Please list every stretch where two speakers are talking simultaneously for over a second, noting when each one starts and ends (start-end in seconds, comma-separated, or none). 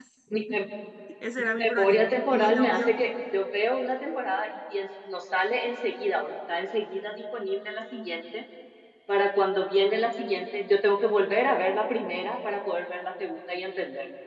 1.4-2.9